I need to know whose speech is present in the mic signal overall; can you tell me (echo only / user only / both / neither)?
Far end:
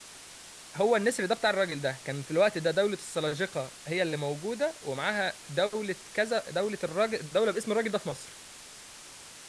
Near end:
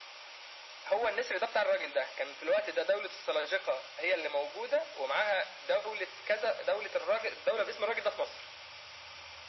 echo only